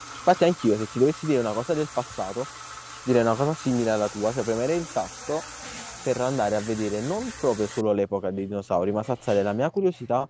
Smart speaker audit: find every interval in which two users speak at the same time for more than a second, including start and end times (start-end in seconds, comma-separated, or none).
none